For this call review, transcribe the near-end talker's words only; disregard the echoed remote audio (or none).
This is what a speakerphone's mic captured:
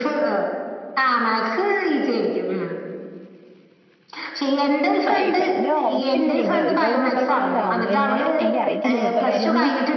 സൈഫന്റെ ഒറപ്പില്ലേ ഇവടെ ഇതൊ ഒര് പൊട്ടാ കോളേജ് ആയ്കൊണ്ട് ഇങ്ങനെ എനിക്കറി ഇല്ലാ ഇവടുത്തെ കാര്യം